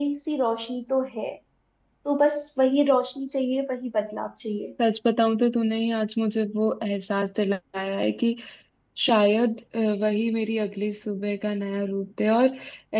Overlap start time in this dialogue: none

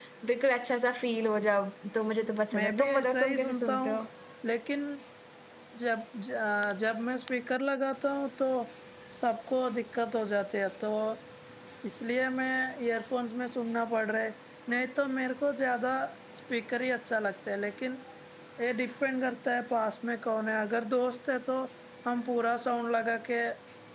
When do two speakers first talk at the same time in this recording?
2.5 s

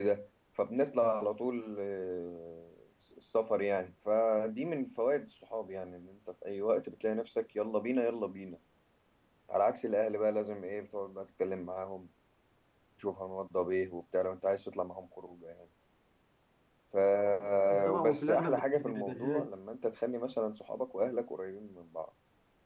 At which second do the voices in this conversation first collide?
17.9 s

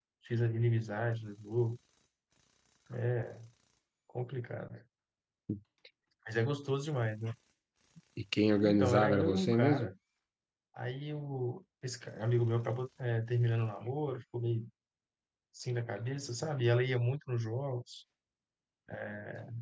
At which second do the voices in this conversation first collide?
8.6 s

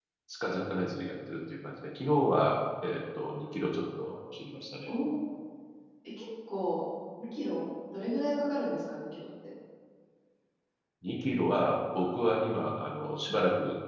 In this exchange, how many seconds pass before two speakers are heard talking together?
none

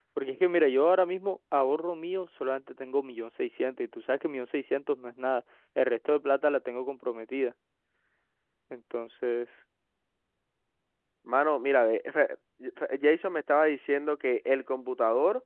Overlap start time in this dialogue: none

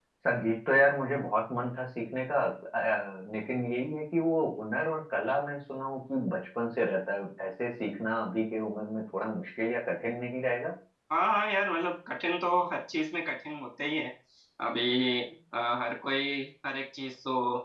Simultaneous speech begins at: none

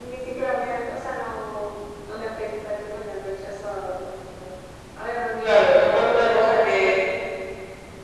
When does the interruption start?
5.4 s

